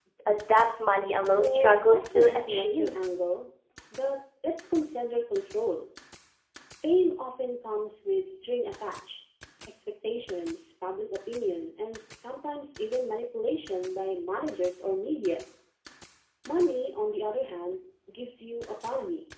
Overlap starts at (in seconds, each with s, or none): 1.4 s